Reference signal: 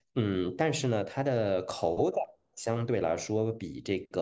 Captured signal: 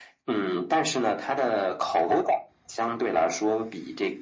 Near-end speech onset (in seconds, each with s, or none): none